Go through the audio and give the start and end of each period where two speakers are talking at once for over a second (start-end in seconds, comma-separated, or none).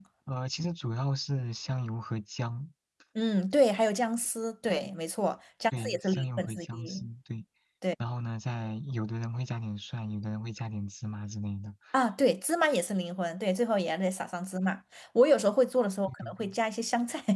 5.8-7.1